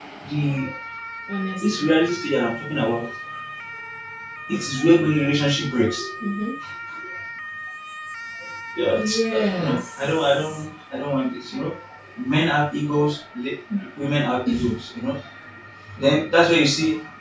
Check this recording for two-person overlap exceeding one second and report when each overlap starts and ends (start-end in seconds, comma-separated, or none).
9.0-10.6